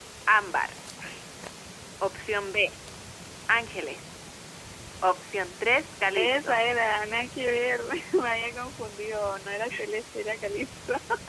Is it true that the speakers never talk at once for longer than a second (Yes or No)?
Yes